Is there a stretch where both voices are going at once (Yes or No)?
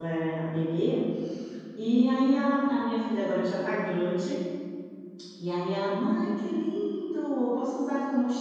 No